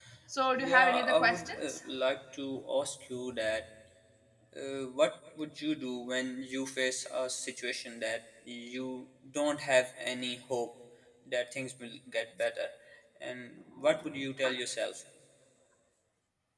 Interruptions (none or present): present